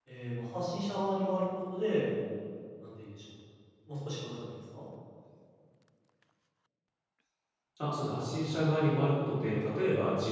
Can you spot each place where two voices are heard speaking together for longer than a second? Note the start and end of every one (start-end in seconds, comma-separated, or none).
none